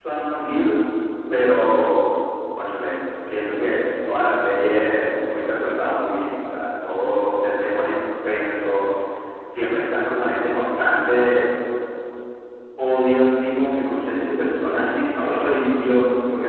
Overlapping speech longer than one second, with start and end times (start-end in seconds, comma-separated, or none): none